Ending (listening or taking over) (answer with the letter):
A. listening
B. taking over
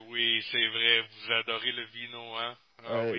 B